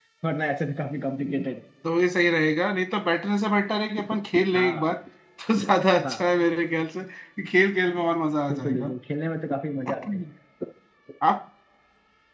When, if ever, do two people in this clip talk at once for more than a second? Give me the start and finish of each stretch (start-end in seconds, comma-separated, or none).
none